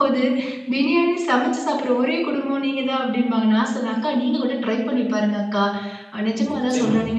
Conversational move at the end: listening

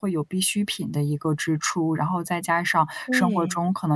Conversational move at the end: listening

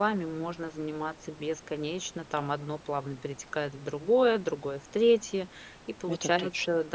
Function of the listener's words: listening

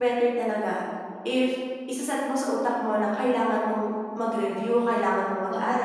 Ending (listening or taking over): listening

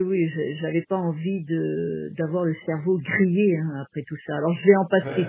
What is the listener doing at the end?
listening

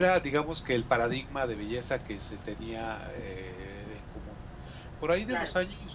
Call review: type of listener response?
listening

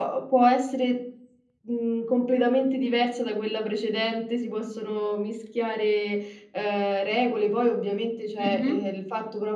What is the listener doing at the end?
listening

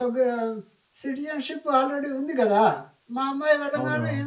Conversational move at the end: listening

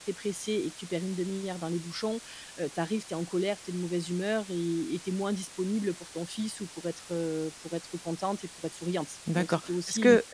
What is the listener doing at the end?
taking over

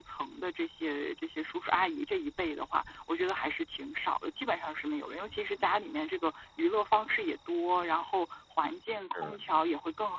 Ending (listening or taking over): listening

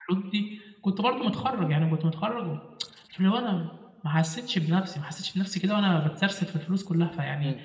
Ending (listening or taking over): listening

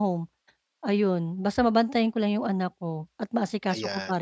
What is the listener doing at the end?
taking over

